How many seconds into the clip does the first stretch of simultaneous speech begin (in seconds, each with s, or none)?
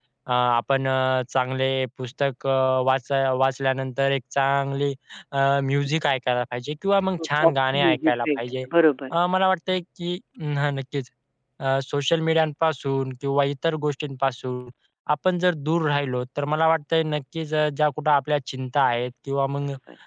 7.2 s